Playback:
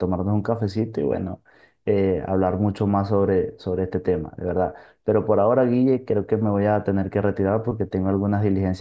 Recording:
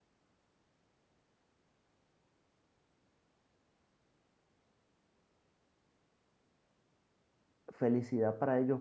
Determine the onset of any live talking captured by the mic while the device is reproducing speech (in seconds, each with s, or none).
7.7 s